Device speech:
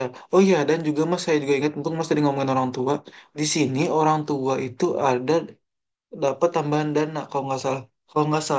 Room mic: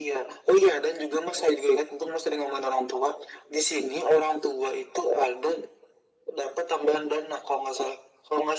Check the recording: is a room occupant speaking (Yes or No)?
No